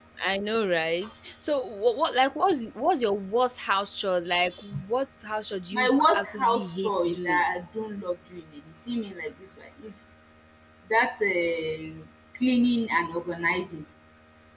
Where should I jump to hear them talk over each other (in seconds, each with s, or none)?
5.7 s